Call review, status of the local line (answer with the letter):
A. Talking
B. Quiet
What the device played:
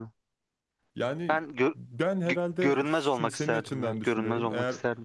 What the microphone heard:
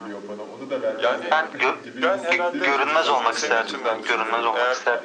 A